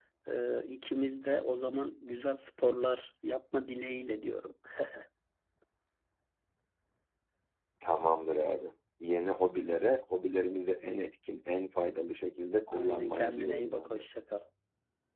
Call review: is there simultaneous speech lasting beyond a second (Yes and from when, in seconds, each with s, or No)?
Yes, from 12.7 s